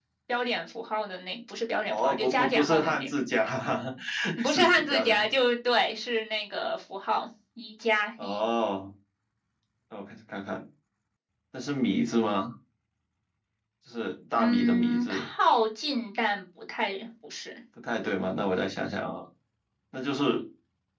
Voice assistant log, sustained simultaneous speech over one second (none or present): present